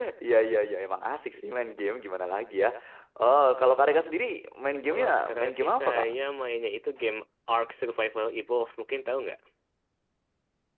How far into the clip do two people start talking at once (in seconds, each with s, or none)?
4.9 s